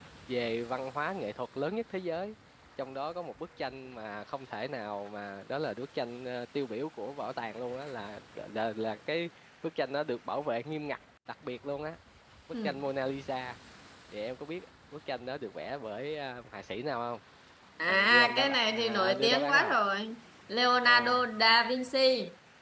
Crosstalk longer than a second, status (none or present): present